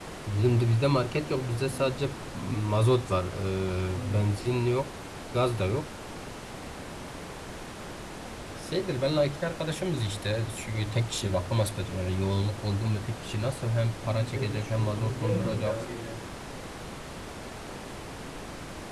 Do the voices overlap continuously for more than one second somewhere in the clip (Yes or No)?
Yes